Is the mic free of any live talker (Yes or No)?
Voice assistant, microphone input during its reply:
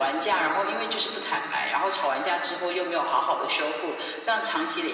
Yes